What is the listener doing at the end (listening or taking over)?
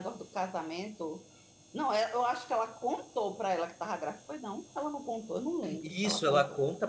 taking over